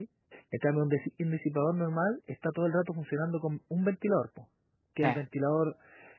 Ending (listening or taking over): listening